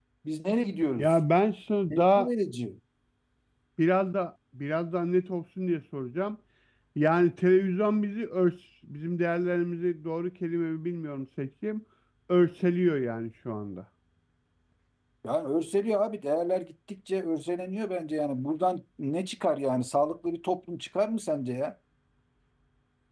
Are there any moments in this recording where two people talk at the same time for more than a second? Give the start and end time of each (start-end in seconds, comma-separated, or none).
none